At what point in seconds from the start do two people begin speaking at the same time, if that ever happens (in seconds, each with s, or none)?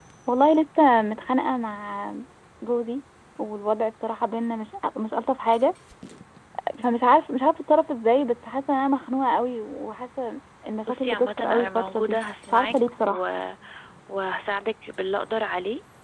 10.9 s